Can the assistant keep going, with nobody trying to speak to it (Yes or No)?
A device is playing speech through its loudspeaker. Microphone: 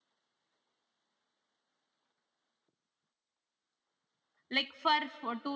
No